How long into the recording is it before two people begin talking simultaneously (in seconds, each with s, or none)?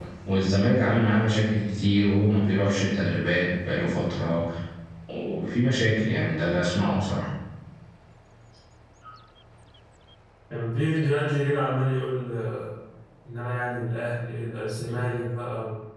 none